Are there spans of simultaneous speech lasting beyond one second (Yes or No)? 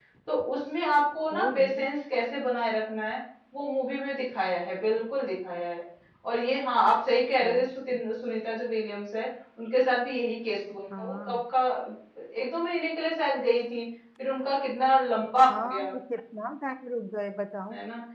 No